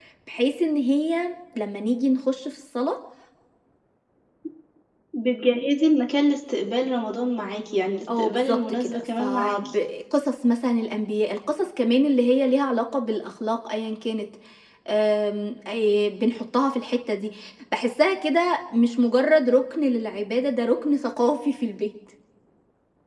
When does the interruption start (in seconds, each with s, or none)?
8.1 s